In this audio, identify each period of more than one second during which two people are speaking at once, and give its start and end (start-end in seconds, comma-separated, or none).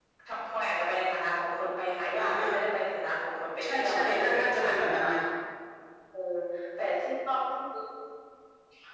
3.6-5.1